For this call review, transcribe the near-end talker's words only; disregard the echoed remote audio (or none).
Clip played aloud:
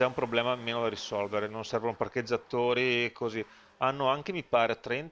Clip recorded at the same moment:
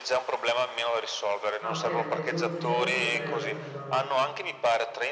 Ah, ok, perché solo l'ufficio nostro non erano 50.